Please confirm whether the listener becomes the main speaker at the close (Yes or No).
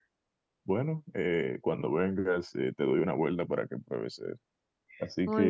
No